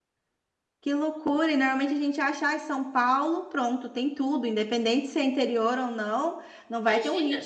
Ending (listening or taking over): listening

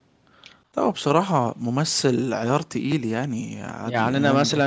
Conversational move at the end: taking over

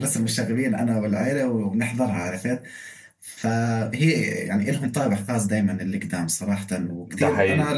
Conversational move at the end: listening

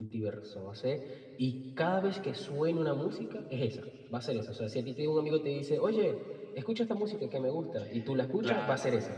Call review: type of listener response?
taking over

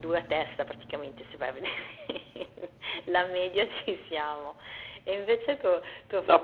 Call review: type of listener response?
taking over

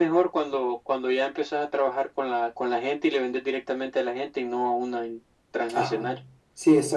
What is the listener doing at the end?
taking over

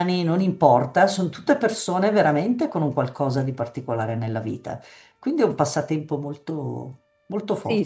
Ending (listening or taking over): taking over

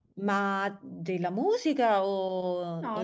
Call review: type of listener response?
taking over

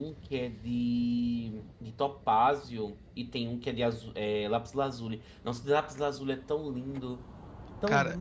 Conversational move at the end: taking over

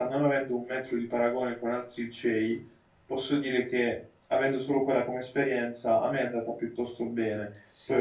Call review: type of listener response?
listening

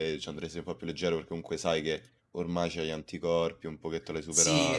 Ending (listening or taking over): taking over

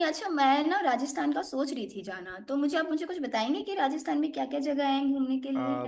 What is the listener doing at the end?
taking over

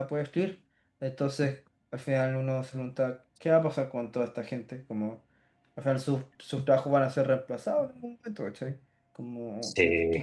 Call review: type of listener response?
listening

